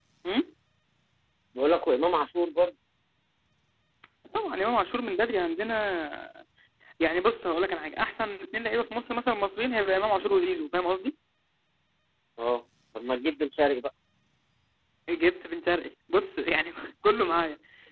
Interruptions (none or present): none